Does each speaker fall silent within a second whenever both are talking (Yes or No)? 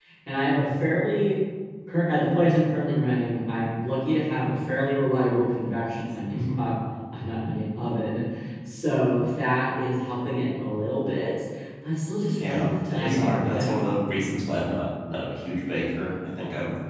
No